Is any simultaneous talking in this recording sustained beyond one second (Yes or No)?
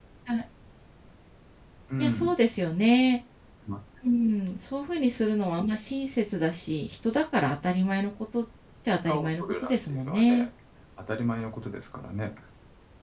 Yes